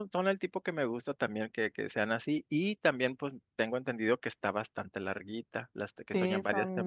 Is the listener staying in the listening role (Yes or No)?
No